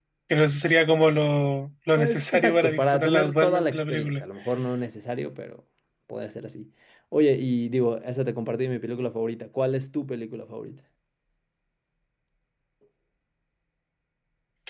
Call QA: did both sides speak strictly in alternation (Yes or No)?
No